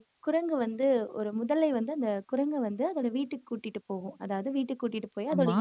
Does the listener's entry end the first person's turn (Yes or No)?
No